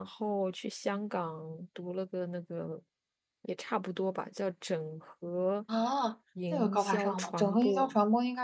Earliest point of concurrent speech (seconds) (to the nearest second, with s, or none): 7 s